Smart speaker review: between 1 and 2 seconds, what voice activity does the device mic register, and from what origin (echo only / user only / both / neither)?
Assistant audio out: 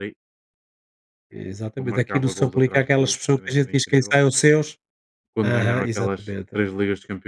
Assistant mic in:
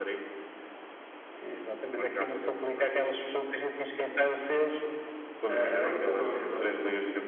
echo only